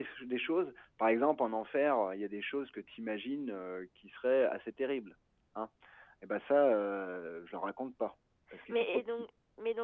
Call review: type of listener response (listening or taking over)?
taking over